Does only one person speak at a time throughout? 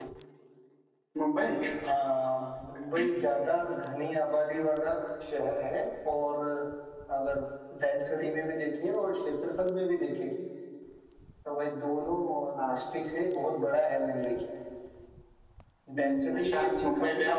No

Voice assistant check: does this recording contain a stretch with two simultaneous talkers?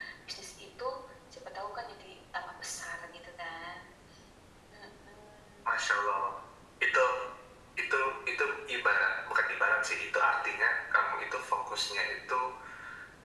No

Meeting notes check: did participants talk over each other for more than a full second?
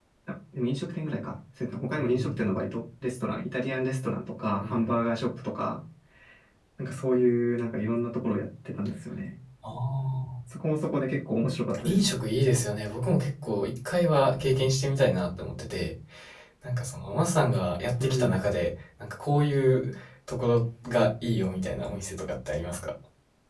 No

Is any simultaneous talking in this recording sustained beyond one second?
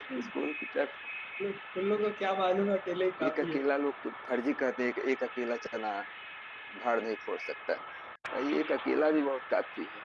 No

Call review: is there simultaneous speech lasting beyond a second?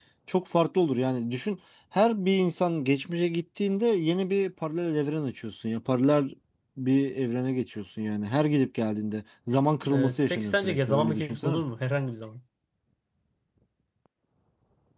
Yes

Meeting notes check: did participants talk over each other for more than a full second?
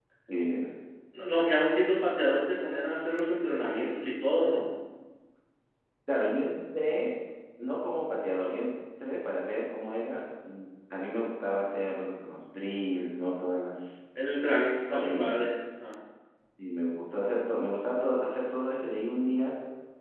No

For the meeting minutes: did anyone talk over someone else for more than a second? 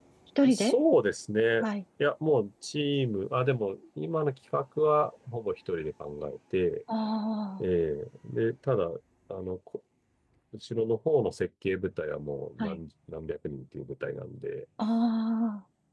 No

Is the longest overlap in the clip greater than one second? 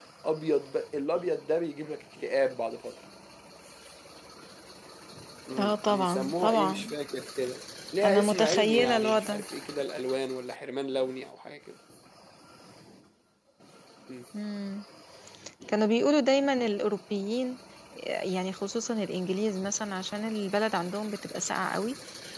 Yes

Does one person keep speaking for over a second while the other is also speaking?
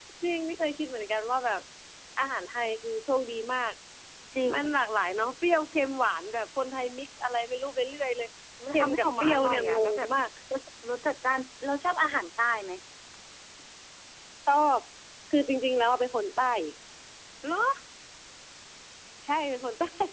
Yes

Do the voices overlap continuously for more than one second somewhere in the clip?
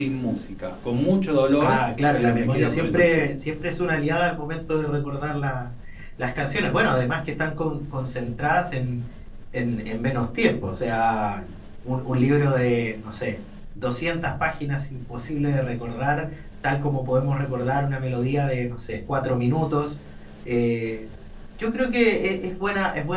Yes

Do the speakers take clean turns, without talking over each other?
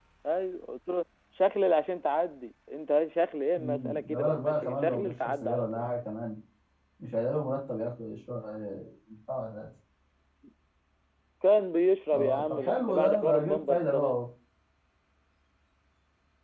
No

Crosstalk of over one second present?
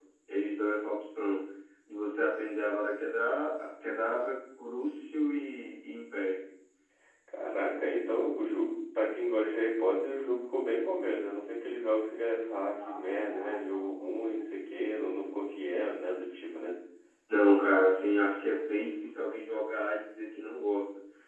No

